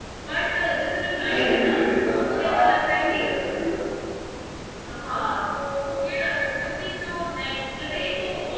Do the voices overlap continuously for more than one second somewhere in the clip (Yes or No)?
Yes